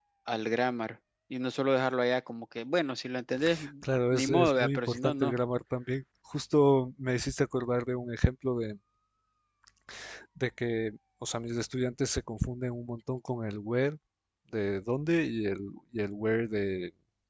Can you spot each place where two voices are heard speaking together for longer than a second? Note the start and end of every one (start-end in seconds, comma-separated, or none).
4.1-5.3